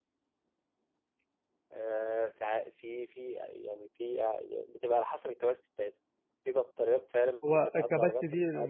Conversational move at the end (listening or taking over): taking over